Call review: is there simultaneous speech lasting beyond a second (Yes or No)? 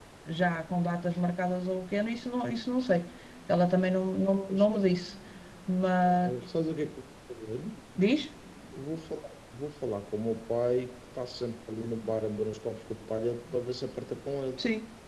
No